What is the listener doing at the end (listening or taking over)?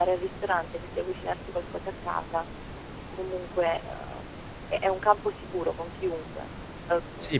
taking over